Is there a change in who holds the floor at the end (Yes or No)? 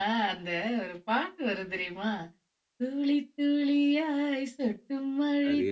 No